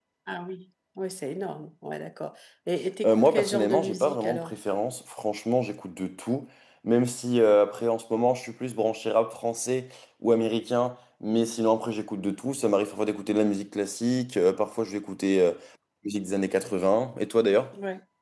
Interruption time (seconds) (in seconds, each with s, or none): 3.0 s